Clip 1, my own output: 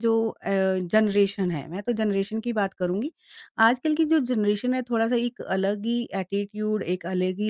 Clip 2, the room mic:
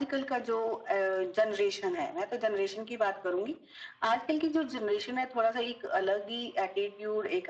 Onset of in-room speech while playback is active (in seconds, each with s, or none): none